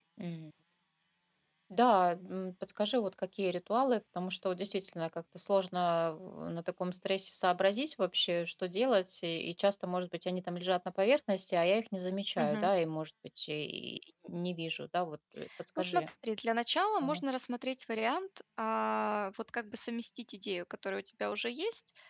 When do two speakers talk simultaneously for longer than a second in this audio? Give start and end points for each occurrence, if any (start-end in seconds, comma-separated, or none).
none